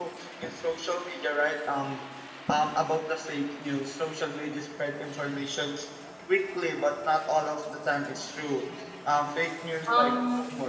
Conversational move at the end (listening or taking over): taking over